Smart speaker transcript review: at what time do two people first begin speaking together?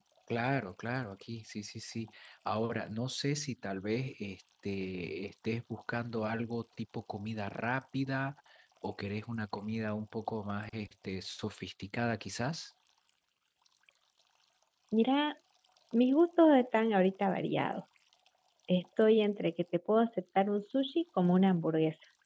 none

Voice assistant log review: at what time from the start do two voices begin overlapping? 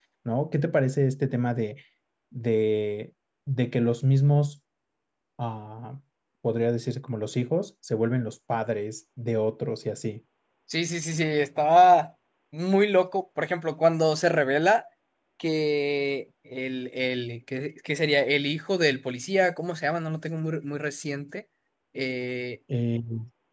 none

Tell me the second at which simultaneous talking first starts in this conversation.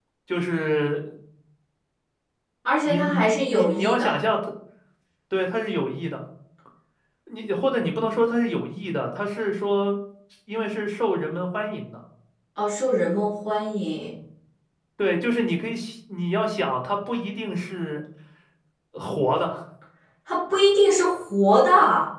2.8 s

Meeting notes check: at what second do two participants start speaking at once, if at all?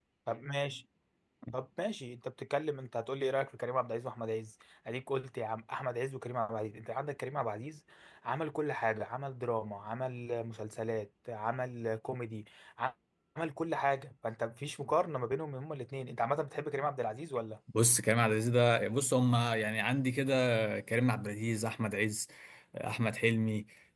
none

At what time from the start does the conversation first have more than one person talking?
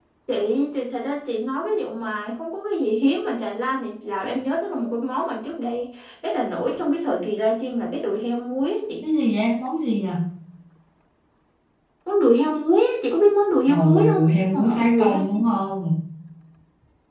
13.7 s

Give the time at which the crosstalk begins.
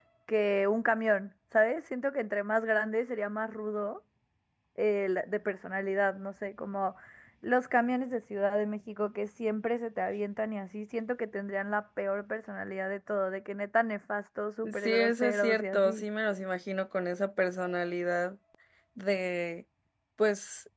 14.6 s

